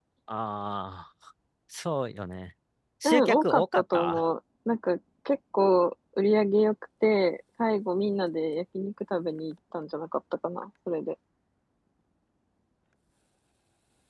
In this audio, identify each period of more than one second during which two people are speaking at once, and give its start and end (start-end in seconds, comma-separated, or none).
3.0-4.3